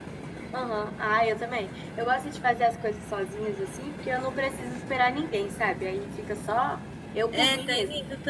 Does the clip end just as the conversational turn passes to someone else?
Yes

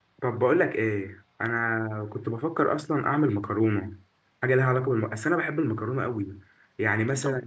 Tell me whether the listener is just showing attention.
Yes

